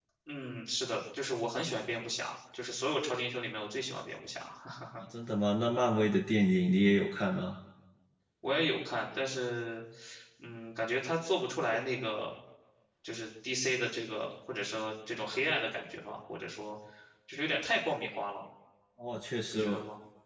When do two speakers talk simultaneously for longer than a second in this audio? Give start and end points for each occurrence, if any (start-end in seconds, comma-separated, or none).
none